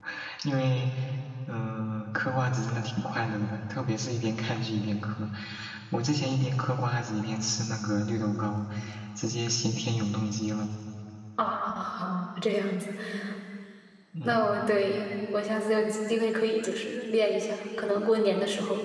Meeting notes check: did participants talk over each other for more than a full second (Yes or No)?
No